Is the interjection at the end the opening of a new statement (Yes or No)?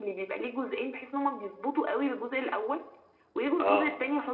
No